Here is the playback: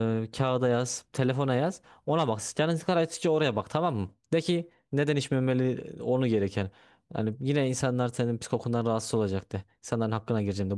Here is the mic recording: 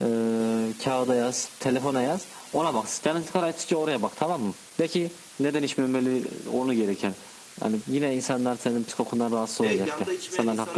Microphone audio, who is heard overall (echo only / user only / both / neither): both